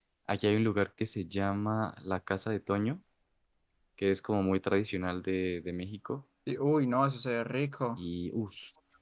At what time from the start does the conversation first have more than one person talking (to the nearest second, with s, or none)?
none